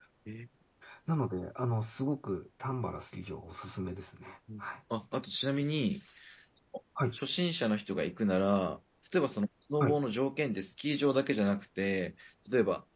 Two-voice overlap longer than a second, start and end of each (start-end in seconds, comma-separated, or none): none